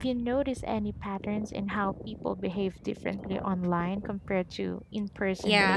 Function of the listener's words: taking over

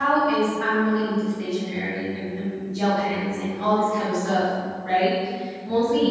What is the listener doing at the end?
listening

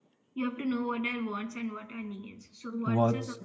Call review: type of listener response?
listening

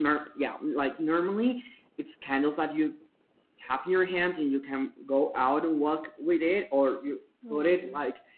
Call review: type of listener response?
listening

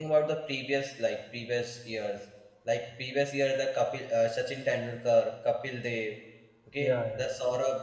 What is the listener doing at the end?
listening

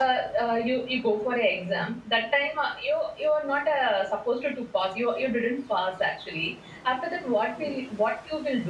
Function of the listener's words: listening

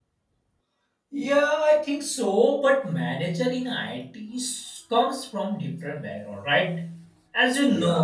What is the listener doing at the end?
listening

